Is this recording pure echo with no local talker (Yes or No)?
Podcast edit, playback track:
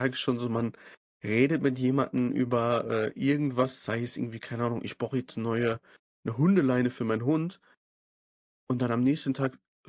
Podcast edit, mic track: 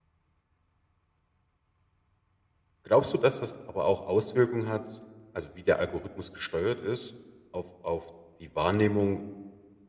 No